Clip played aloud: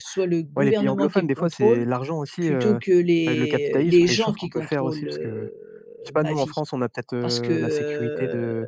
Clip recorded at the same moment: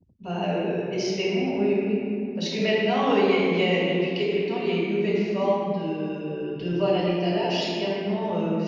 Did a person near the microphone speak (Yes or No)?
Yes